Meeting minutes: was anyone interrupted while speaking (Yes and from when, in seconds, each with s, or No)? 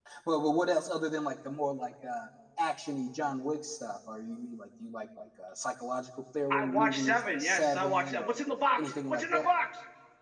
Yes, from 6.5 s